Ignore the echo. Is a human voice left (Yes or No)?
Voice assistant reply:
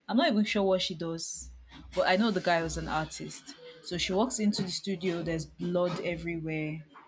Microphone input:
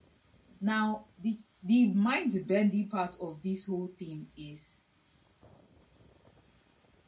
Yes